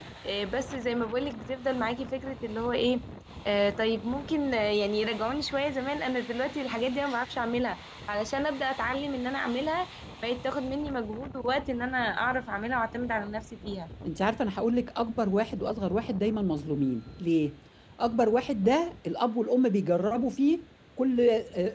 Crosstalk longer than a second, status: none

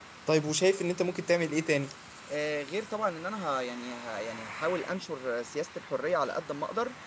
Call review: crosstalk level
none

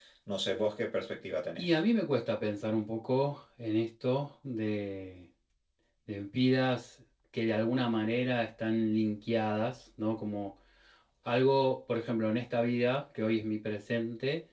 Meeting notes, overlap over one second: none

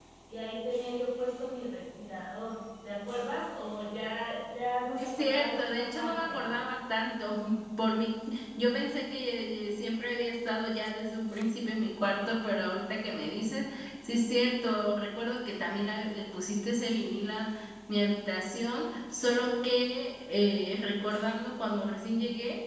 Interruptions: present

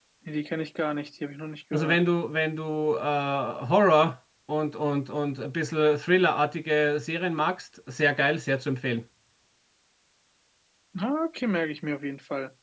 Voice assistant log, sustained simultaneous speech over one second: none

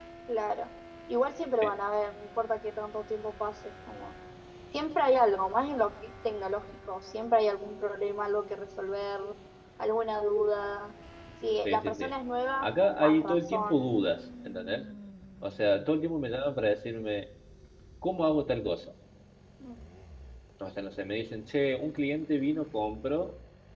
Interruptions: present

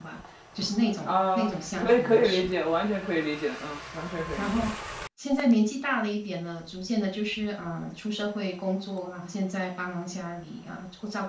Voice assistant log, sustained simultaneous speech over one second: present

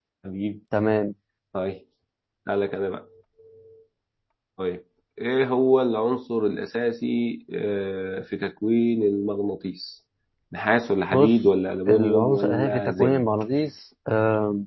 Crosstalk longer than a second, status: present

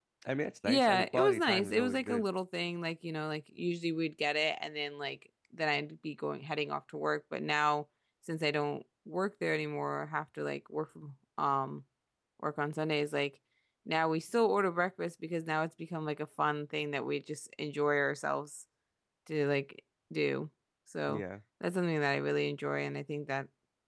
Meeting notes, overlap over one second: present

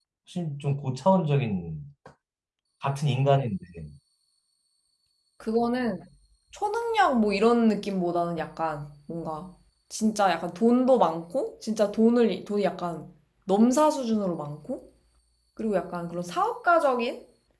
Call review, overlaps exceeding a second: none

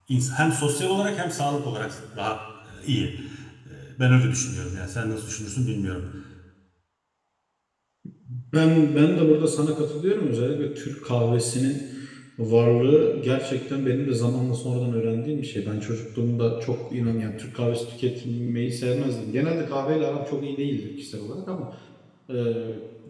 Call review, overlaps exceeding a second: none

